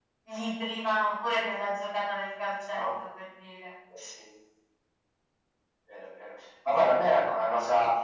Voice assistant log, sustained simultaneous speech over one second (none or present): none